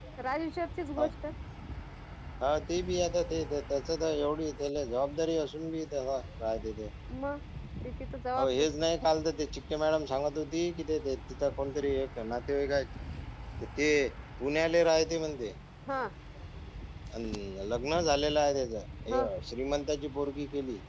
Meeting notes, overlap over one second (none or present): none